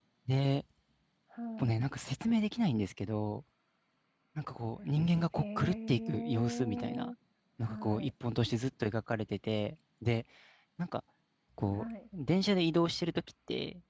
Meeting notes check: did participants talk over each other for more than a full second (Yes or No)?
Yes